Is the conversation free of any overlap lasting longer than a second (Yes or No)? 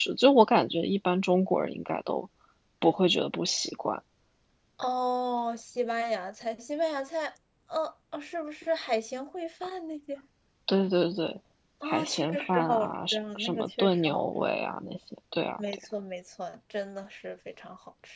No